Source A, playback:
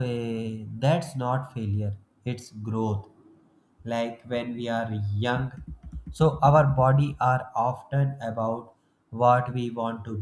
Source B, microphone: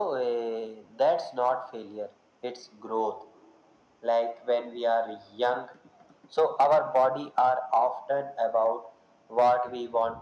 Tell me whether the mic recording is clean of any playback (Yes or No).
No